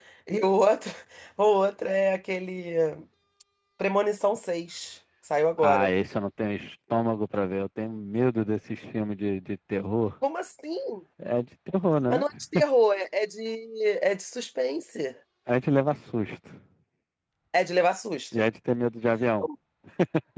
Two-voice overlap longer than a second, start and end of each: none

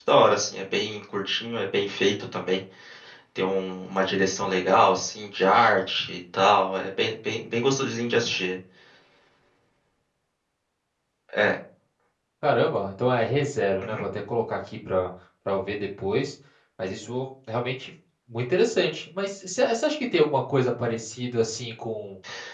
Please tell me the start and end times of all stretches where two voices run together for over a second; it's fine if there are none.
none

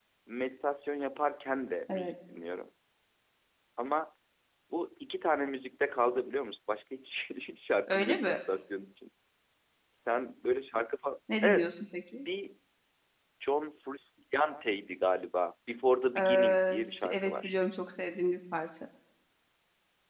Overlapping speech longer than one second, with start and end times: 16.2-17.5

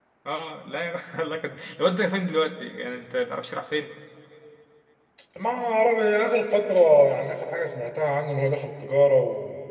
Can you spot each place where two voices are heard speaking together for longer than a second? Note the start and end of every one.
none

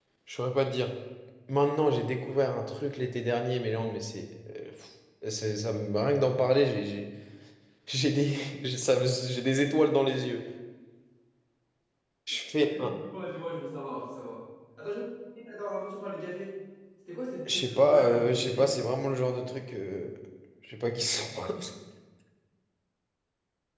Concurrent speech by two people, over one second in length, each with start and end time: 17.5-18.7

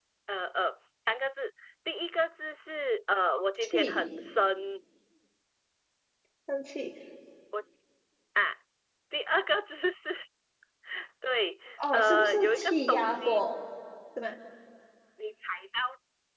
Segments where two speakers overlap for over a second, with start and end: 11.9-13.4

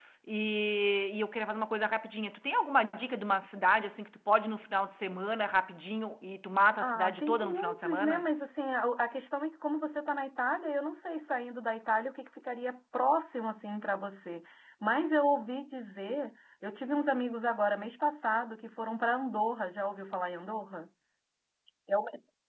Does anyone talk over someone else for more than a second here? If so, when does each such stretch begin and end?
6.8-8.2

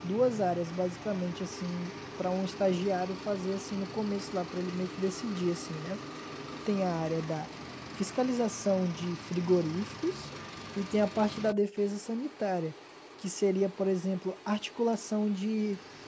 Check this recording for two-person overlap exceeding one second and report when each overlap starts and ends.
none

